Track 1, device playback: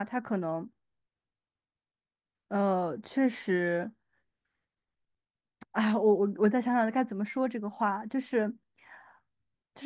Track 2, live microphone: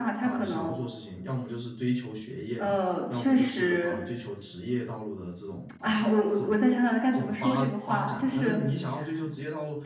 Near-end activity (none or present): present